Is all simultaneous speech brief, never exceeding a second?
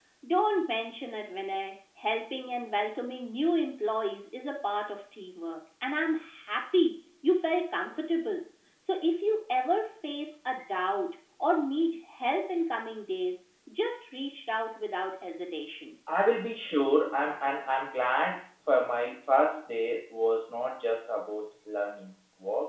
Yes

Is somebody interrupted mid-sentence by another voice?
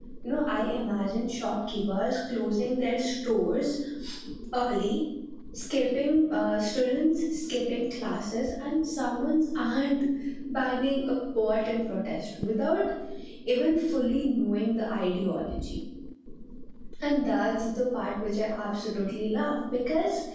No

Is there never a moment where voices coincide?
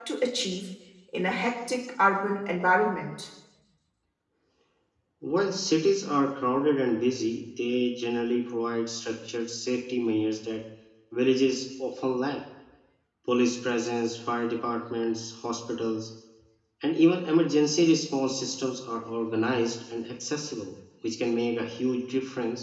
Yes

